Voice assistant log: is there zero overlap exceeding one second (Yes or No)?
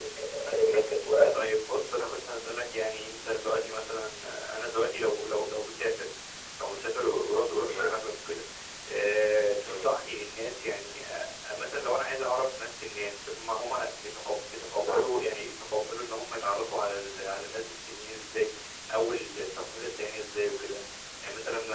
Yes